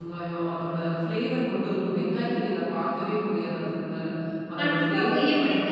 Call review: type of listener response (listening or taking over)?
taking over